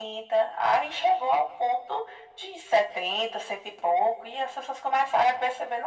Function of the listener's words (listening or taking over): taking over